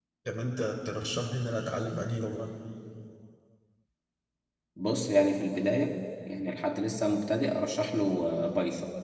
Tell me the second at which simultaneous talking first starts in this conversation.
none

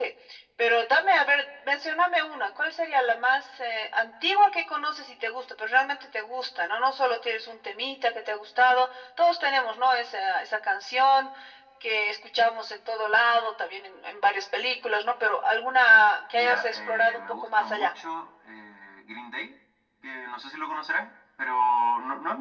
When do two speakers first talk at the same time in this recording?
16.3 s

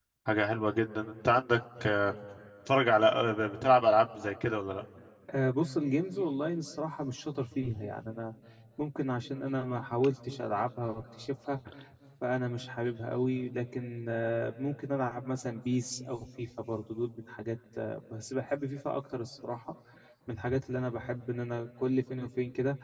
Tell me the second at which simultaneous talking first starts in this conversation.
none

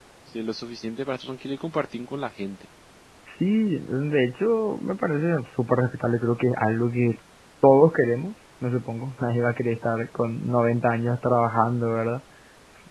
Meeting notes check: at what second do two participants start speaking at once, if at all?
none

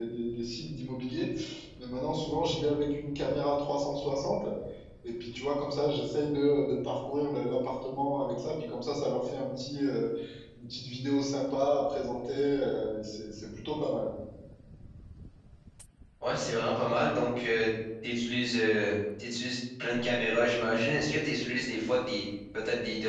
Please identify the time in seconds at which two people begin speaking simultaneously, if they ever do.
none

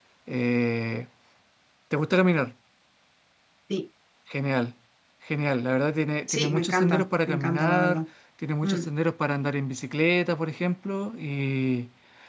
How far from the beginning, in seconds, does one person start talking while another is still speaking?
6.3 s

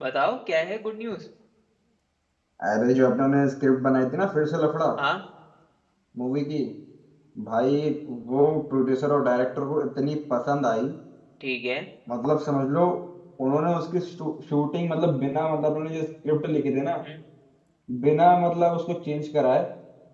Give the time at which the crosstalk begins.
none

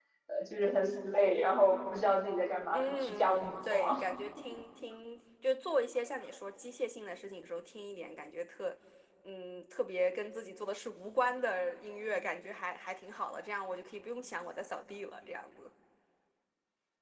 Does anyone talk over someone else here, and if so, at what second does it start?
2.7 s

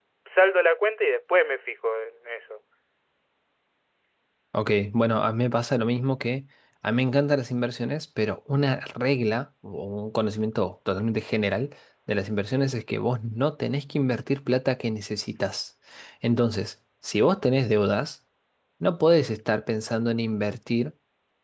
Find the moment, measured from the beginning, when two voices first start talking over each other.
none

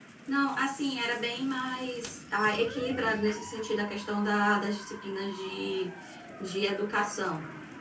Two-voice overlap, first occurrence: none

